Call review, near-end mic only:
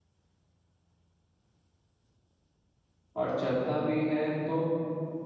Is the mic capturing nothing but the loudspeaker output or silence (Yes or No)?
No